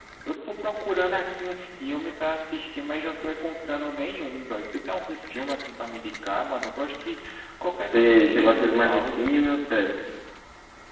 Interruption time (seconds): 7.9 s

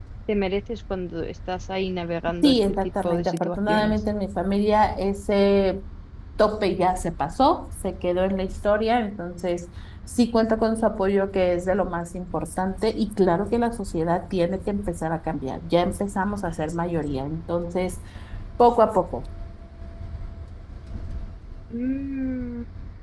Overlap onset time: 2.4 s

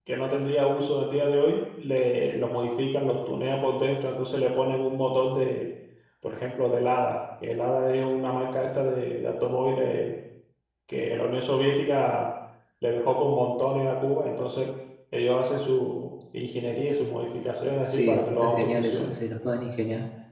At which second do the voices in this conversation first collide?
17.9 s

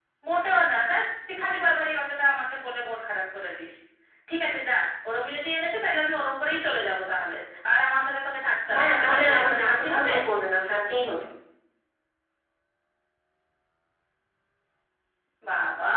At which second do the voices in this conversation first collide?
8.7 s

